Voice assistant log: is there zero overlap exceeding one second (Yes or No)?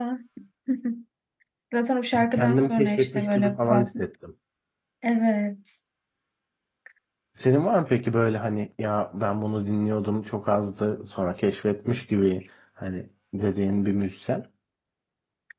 No